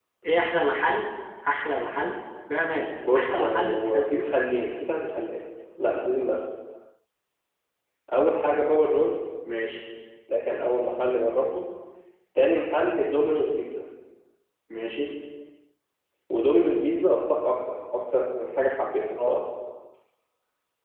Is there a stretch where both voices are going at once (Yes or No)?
Yes